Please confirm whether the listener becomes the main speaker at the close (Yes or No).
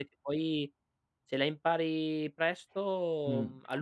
Yes